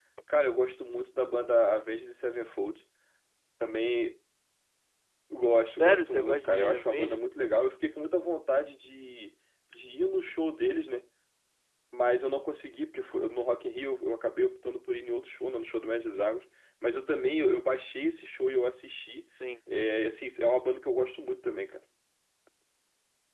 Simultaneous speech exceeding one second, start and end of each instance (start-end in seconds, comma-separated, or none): 5.8-7.3